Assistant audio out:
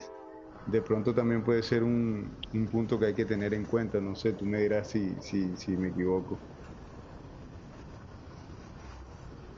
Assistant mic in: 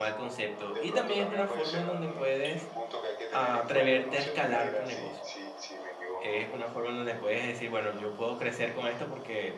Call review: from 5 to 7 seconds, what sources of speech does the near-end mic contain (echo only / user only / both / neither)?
both